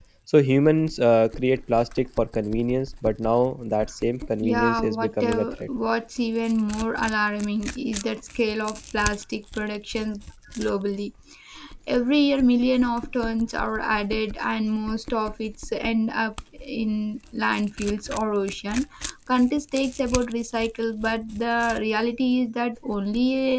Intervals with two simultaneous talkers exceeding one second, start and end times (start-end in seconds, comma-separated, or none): 4.4-5.6